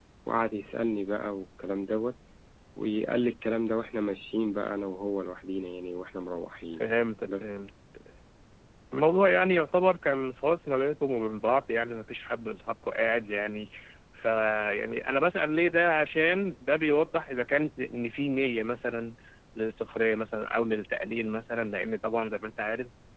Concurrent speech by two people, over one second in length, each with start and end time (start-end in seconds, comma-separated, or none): none